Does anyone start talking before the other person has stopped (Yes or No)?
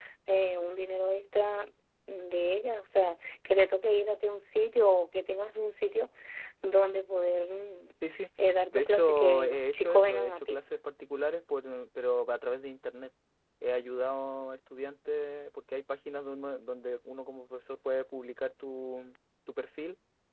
Yes